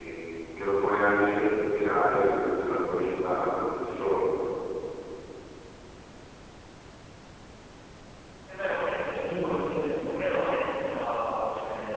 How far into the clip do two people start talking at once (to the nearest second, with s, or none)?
none